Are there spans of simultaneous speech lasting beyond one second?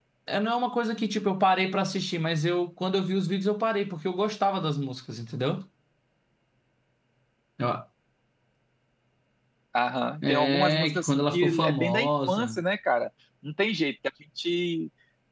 Yes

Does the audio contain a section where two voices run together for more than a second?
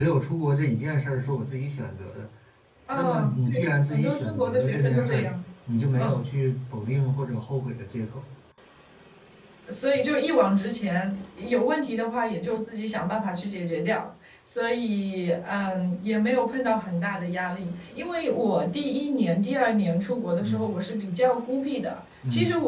Yes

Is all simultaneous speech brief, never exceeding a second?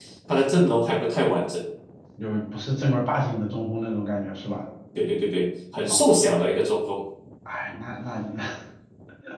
Yes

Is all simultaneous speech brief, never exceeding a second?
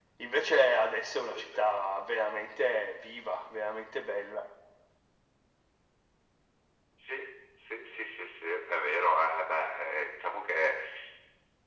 Yes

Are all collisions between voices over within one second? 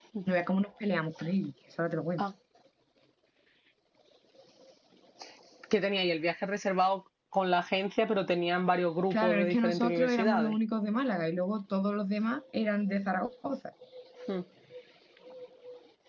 No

